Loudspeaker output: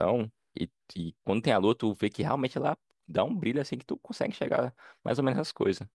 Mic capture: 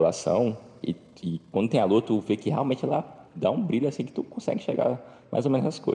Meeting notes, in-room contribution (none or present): none